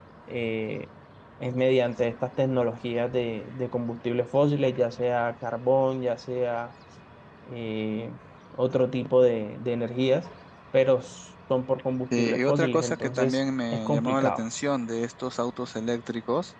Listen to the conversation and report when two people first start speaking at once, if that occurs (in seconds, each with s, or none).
12.1 s